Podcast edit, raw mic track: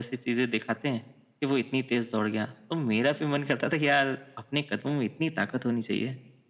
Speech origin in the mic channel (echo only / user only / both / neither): echo only